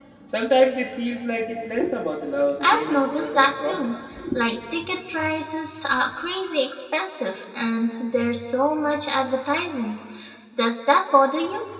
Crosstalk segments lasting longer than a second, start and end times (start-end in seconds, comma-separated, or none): 2.6-4.0